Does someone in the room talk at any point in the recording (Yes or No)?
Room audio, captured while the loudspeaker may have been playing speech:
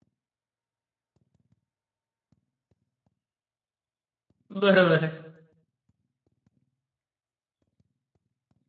Yes